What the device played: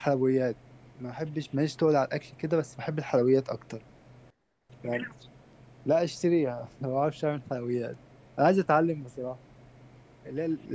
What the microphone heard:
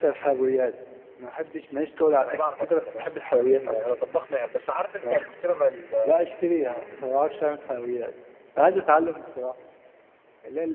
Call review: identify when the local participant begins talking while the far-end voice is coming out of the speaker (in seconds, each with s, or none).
2.2 s